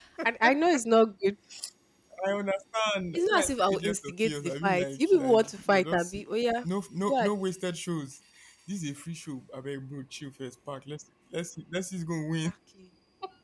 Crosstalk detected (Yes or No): Yes